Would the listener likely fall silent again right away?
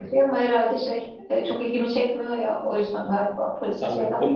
No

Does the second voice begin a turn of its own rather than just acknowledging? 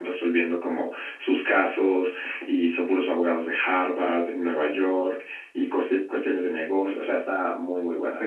Yes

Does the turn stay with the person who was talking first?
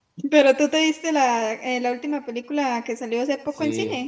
No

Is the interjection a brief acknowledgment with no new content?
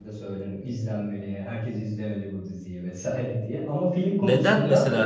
No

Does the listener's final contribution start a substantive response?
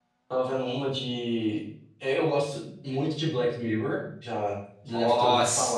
Yes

